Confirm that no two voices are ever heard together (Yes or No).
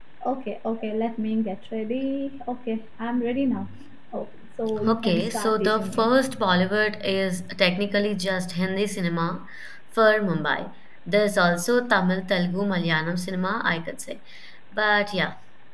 No